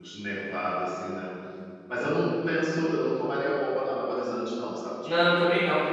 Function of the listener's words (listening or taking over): taking over